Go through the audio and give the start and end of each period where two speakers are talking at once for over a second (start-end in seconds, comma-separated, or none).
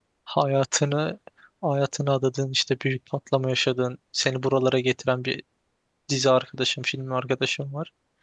none